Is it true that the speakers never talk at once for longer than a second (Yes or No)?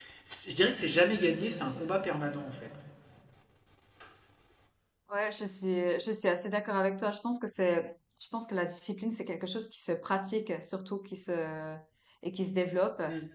Yes